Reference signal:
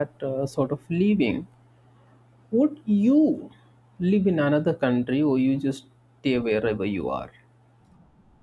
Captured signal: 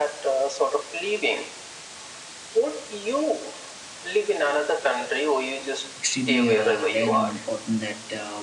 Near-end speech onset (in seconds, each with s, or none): 6.0 s